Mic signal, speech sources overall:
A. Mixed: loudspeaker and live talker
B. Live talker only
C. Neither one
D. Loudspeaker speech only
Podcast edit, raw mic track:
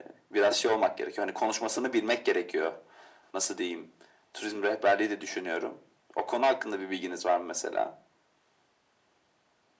D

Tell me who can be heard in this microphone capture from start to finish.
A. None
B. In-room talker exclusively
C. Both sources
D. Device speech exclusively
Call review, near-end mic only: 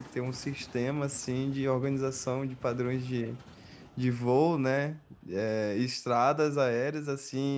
B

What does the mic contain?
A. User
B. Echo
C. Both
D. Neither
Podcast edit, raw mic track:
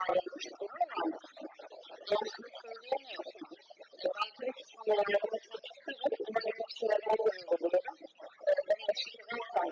B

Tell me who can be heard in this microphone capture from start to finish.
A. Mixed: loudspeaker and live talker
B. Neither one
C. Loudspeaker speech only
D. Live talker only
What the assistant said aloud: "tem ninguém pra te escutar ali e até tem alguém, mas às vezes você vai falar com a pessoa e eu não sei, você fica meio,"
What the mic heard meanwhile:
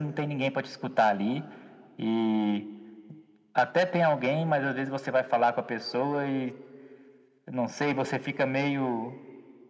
C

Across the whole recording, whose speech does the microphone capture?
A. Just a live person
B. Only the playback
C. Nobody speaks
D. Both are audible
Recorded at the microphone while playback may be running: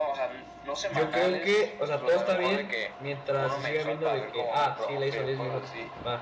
D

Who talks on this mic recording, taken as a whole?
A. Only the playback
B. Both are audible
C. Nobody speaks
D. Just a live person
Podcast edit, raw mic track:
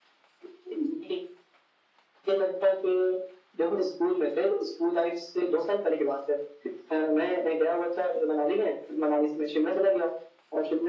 A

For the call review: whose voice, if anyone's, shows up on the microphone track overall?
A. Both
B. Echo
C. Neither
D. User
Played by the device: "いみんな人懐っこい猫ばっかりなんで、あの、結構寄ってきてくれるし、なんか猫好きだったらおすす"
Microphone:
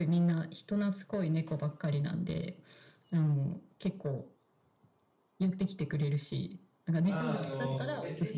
A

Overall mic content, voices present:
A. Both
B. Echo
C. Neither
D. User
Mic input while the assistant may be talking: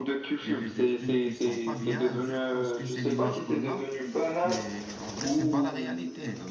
A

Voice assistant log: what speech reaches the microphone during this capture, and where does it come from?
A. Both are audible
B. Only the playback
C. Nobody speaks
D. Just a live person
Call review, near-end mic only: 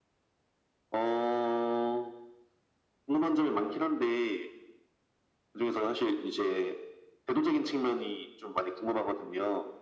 B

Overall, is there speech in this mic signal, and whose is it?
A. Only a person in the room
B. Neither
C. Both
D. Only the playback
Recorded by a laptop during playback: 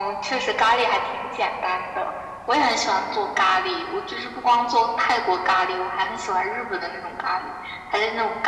D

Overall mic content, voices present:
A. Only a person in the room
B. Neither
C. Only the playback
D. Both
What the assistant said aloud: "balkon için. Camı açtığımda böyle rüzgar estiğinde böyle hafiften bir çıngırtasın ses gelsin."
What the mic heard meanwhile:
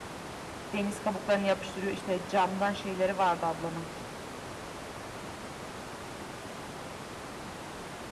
A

